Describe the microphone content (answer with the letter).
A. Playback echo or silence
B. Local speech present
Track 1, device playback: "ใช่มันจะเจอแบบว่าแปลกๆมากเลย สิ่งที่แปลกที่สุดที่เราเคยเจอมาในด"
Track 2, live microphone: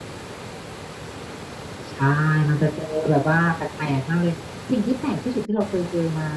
A